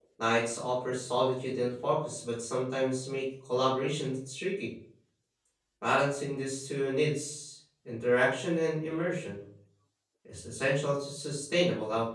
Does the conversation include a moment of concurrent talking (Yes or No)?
No